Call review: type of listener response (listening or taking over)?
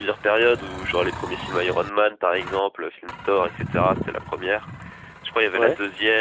listening